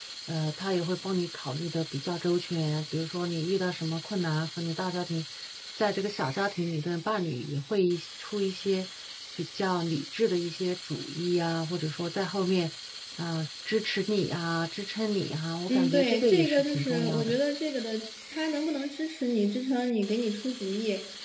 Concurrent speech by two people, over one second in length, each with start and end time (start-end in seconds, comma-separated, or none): 15.7-17.4